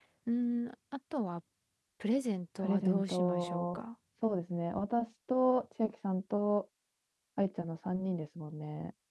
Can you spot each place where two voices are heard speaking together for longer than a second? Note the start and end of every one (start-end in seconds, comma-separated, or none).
2.6-3.8